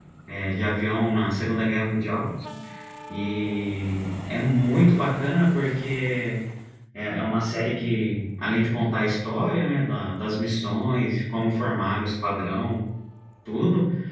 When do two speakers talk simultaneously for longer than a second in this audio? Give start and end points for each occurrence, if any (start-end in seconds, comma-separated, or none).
none